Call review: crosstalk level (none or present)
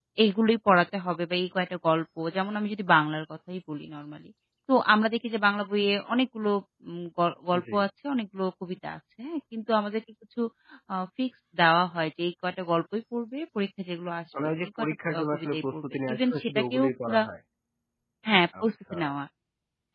present